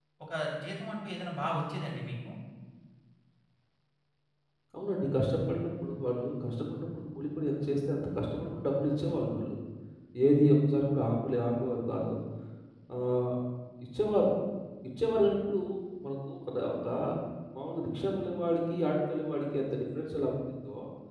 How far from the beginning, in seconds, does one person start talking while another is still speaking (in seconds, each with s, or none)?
none